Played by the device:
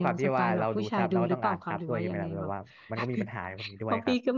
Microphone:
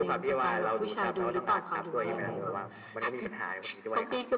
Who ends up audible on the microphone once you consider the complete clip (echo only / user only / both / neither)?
both